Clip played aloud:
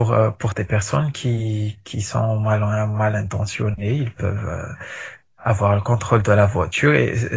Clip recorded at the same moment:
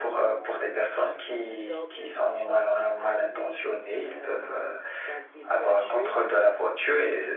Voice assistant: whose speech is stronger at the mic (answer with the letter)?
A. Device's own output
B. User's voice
A